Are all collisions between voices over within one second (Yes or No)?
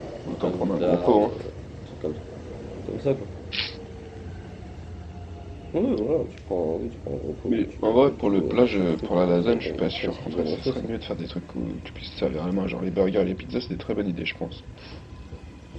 No